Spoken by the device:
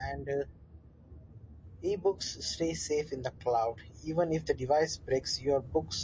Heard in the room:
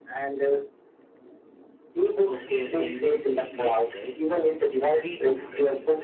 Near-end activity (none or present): present